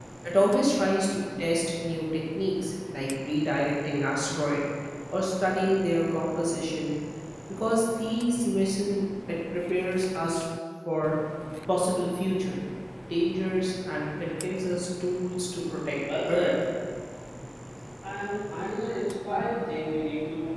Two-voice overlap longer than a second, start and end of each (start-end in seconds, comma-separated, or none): none